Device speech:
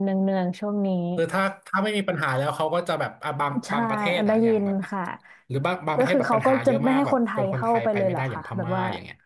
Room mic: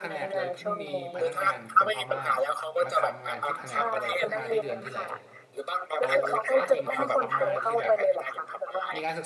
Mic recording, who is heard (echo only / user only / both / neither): both